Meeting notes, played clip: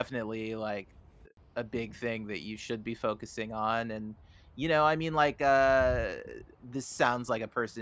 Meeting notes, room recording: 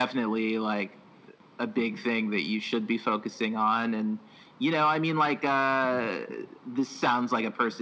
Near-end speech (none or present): none